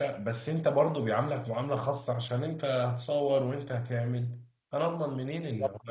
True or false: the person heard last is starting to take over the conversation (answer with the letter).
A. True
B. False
A